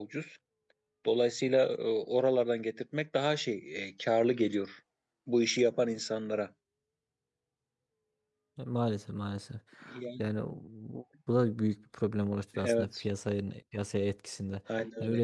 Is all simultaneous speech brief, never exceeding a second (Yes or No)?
Yes